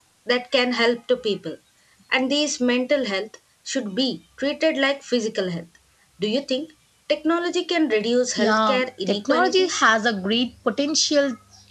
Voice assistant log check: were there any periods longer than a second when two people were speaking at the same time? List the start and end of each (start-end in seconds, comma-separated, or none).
8.4-9.8